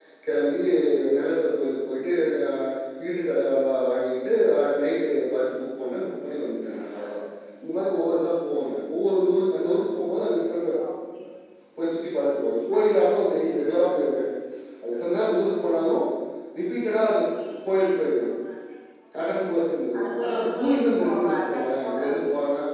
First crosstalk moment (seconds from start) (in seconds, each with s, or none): 20.2 s